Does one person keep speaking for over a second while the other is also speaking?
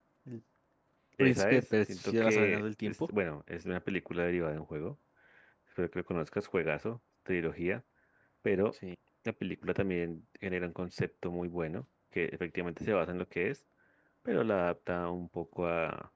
Yes, from 1.2 s

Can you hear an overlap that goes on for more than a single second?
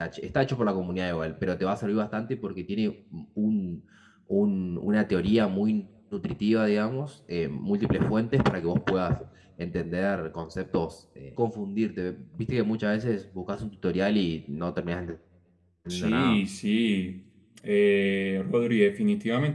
No

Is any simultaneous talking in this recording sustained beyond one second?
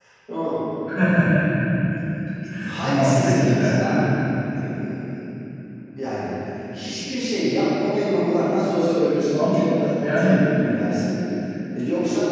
Yes, from 2.8 s

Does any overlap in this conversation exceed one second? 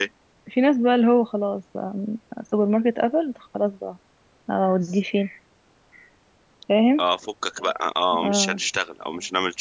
No

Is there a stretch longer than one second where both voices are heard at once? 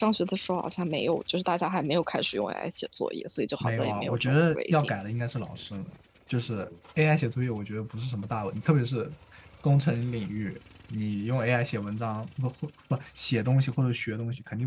Yes, from 3.6 s

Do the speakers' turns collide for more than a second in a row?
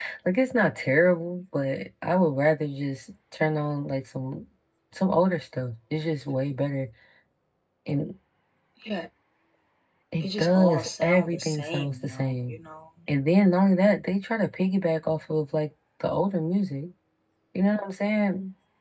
Yes, from 10.2 s

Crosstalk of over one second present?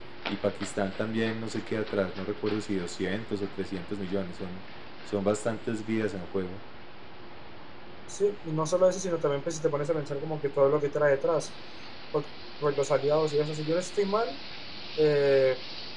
No

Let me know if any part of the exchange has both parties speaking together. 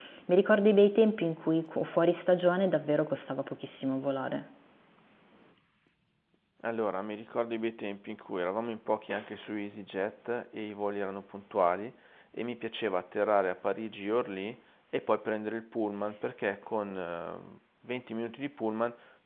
No

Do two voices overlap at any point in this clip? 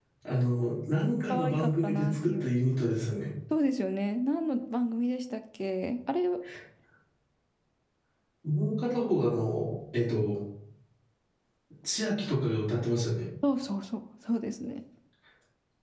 Yes, from 1.3 s

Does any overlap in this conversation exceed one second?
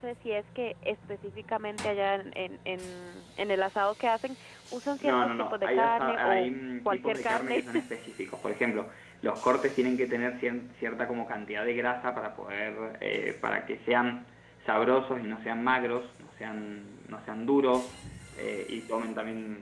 Yes, from 5.0 s

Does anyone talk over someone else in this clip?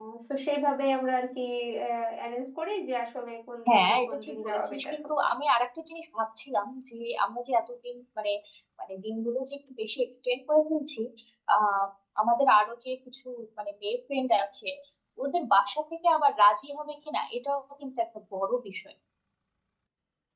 Yes, from 3.7 s

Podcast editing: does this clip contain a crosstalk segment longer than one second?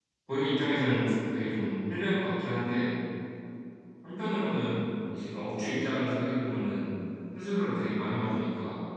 No

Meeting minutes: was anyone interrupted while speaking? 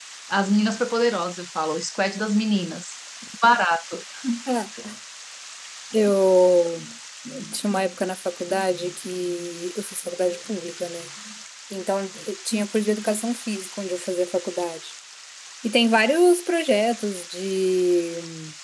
No

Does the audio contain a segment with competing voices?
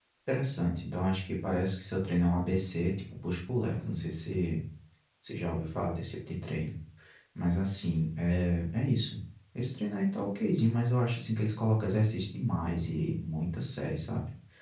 No

